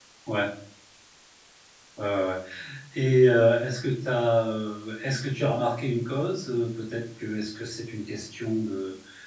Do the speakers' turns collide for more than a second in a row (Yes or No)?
No